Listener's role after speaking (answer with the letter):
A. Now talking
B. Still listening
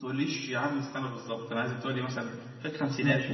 A